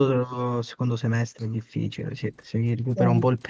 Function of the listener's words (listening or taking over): listening